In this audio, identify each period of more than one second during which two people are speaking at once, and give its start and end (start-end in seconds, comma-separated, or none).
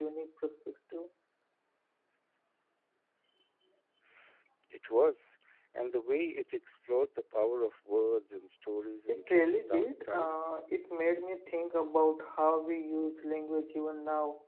9.1-10.4